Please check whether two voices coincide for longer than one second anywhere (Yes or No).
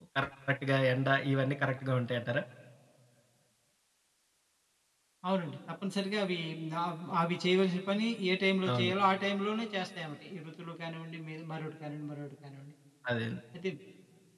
No